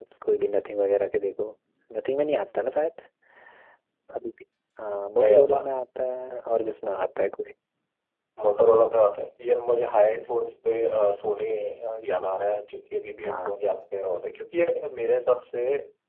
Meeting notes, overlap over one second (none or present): none